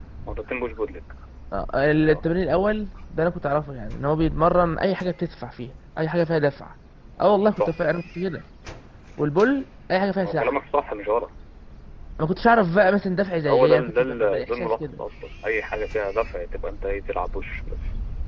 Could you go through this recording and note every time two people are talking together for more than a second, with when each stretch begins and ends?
13.4-15.0

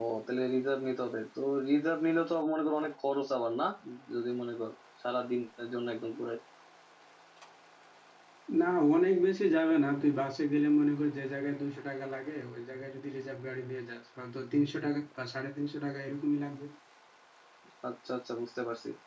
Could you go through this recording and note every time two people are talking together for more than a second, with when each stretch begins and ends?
none

